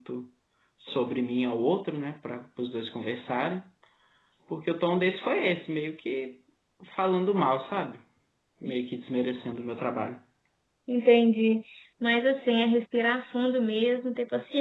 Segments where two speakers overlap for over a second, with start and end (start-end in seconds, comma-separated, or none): none